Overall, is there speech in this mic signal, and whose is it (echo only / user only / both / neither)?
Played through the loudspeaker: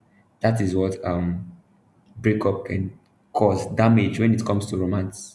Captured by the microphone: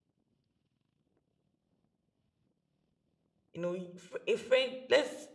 user only